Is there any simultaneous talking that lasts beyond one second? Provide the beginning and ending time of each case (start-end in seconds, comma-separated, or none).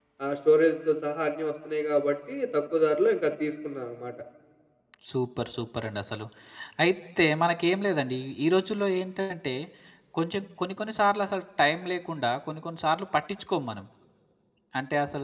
none